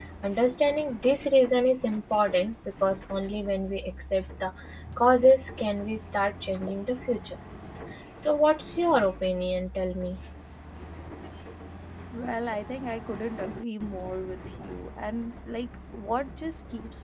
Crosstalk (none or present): none